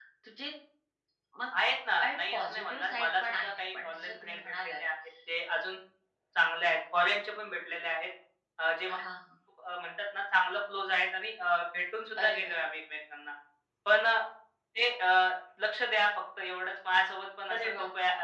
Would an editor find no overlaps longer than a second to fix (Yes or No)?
No